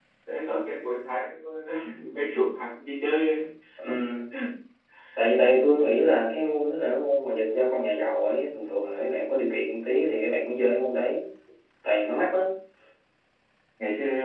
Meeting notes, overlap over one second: none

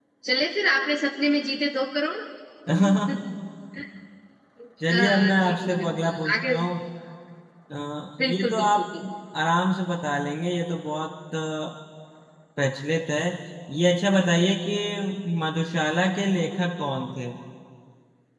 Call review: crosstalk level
present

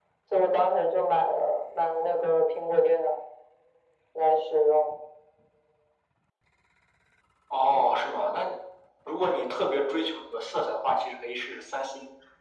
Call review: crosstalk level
none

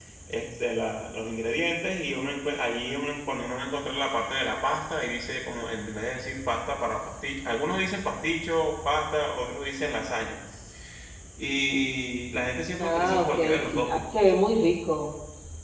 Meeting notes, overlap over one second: present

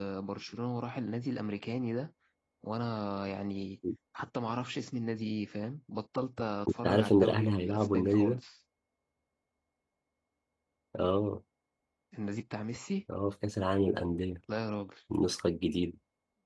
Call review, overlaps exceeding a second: present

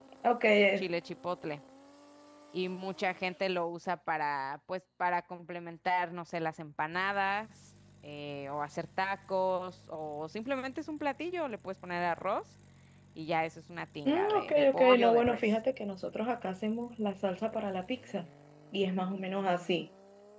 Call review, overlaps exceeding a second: present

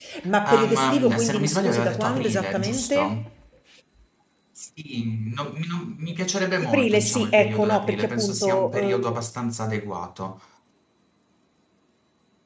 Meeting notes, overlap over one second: present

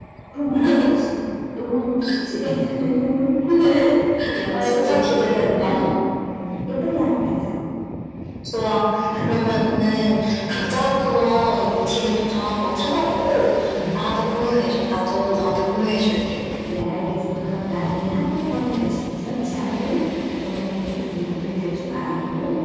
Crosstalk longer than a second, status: present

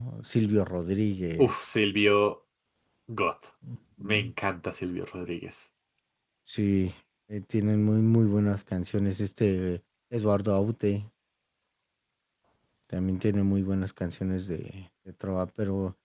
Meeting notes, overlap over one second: none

